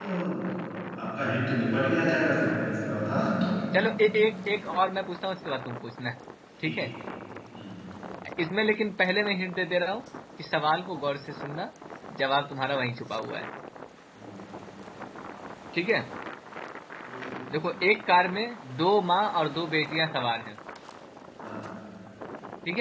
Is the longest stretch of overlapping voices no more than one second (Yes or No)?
Yes